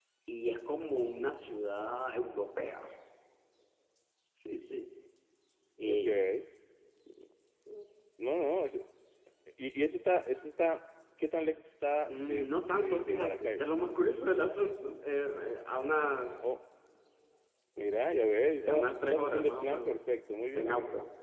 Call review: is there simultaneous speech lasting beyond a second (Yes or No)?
Yes